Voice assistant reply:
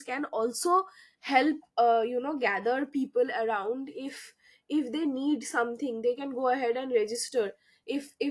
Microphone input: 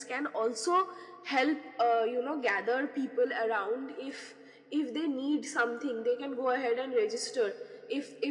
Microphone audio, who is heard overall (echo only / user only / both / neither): echo only